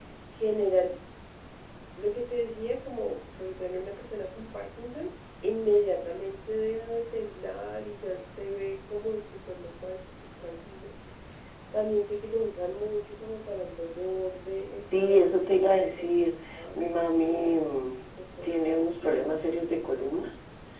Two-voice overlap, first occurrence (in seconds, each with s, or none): 14.9 s